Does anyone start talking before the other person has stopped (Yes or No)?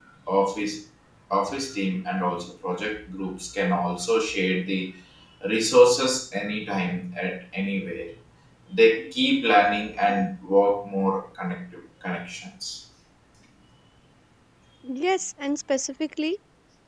No